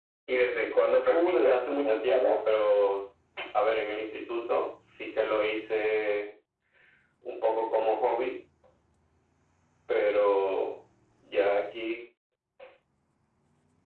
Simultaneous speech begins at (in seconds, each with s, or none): 1.1 s